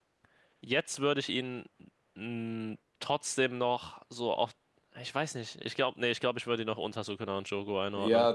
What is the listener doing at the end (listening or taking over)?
taking over